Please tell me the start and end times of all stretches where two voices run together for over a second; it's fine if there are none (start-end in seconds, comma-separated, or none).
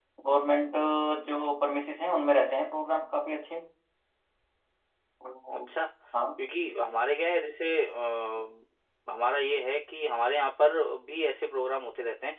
none